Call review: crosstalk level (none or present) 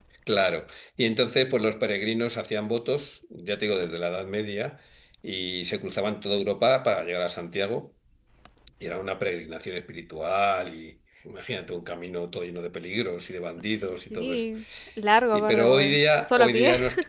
present